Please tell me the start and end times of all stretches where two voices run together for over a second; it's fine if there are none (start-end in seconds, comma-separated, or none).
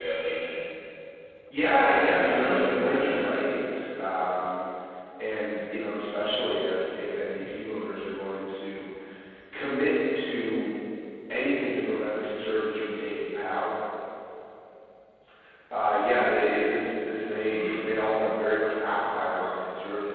1.7-3.3